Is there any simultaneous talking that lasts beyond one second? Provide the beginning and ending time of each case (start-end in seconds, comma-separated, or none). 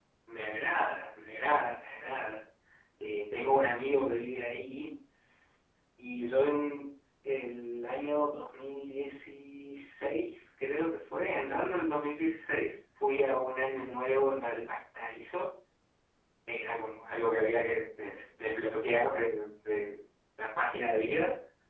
none